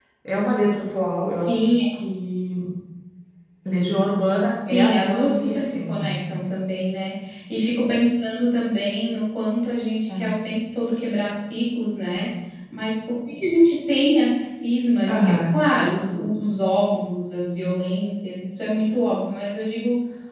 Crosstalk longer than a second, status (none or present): present